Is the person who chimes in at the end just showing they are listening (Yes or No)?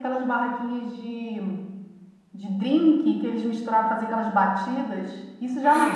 Yes